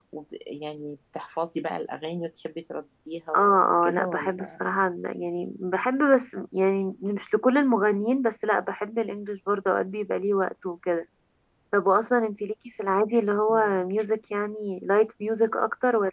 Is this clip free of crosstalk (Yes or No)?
No